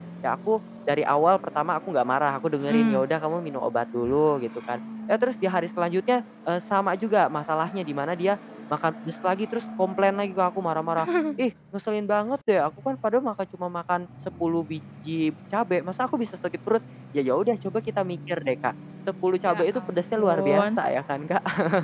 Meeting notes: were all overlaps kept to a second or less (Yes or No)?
No